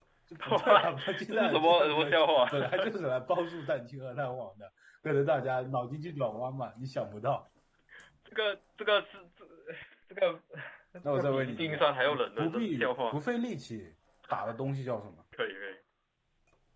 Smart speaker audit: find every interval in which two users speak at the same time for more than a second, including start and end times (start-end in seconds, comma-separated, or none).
0.5-2.1, 11.1-13.2